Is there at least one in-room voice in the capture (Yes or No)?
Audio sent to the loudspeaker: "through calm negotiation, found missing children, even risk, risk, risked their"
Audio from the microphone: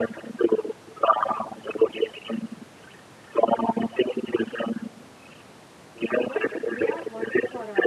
Yes